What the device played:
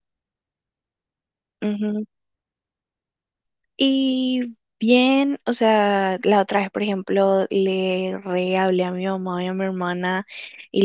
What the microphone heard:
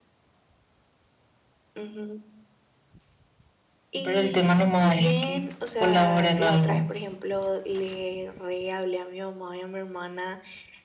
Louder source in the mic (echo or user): user